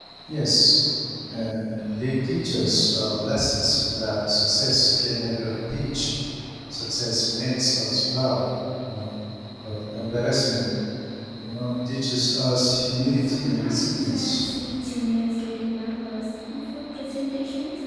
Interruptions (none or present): present